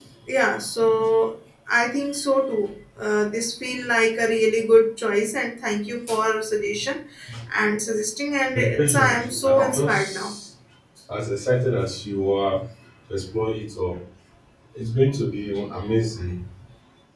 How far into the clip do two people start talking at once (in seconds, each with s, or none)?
8.6 s